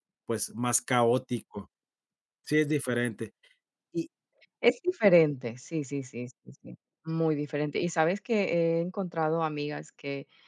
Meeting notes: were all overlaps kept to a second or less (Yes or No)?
Yes